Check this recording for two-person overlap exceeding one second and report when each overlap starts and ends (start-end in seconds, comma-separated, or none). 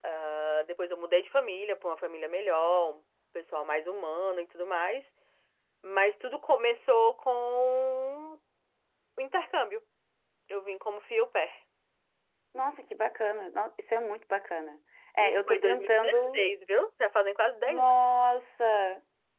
15.2-16.4